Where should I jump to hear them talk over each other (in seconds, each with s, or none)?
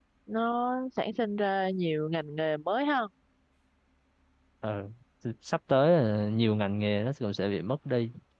none